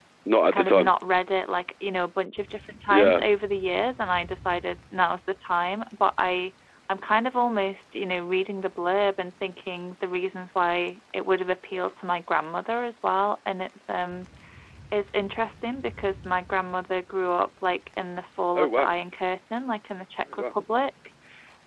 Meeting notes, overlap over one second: none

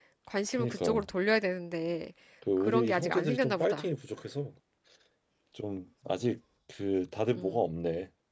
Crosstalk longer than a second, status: present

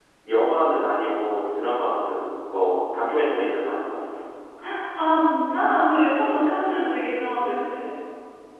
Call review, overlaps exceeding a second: none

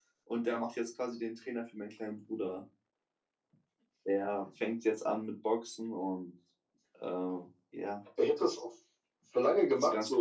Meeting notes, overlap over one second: none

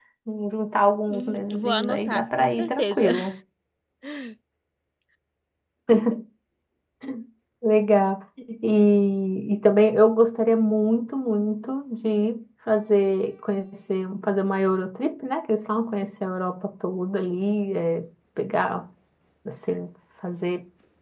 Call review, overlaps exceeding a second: present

